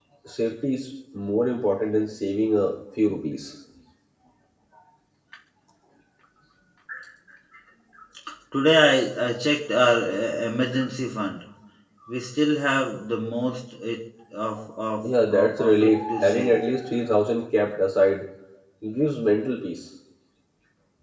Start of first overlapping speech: 15.0 s

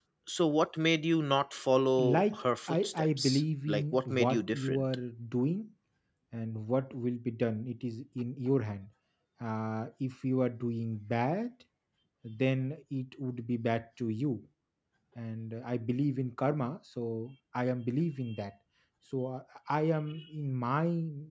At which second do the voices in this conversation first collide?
2.0 s

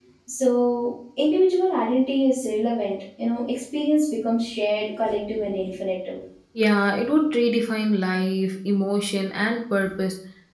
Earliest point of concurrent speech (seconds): none

